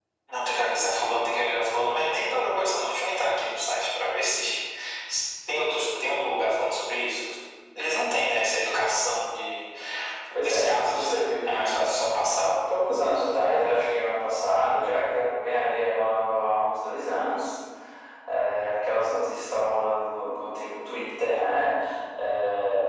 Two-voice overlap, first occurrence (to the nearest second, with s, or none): 10 s